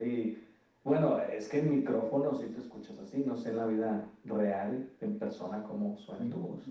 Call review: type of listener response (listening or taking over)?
taking over